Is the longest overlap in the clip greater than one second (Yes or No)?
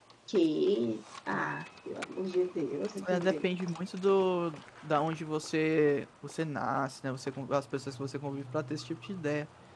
No